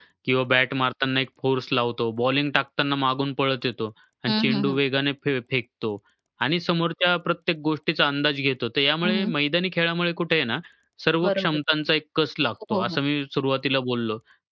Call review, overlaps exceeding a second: none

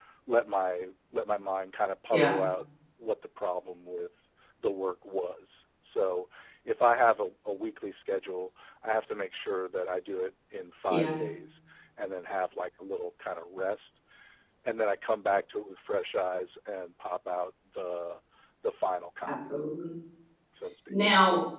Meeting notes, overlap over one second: none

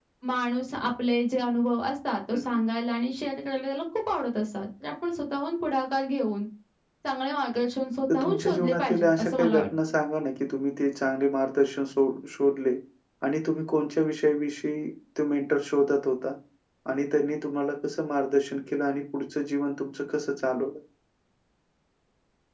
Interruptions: present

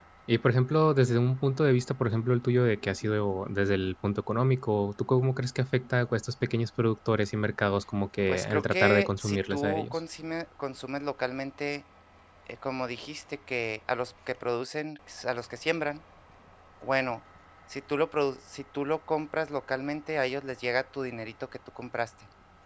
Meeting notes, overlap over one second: present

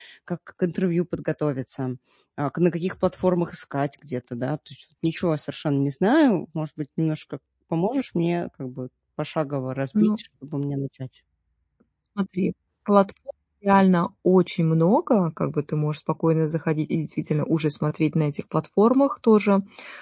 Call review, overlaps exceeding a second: none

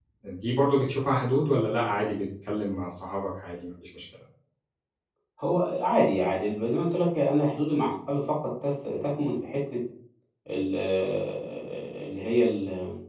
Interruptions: none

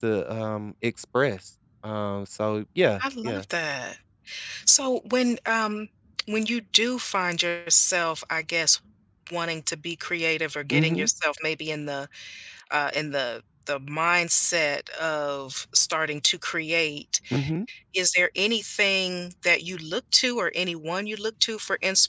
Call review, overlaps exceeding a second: none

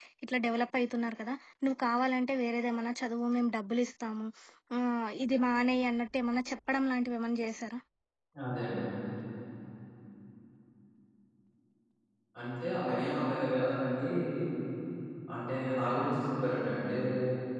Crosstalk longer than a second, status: none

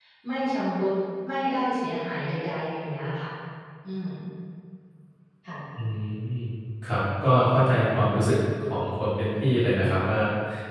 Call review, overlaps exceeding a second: none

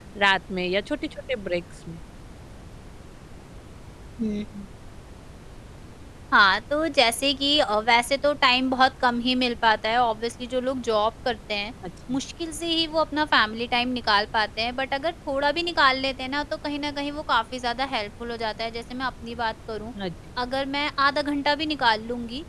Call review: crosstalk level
none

